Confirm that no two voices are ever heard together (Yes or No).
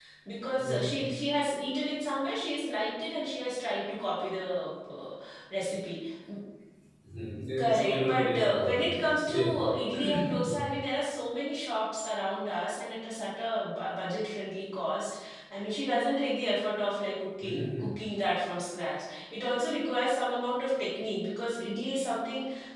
No